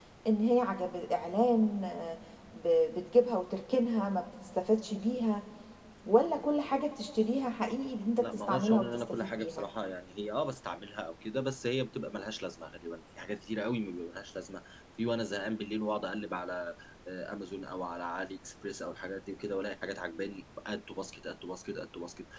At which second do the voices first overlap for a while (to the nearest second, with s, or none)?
8 s